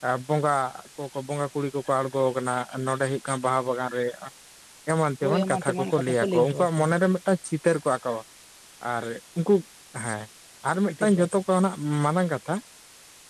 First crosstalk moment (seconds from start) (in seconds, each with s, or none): 5.2 s